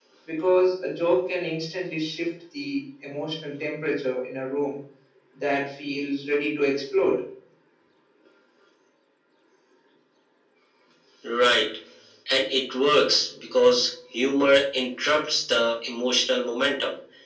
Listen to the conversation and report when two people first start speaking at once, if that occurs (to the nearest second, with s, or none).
none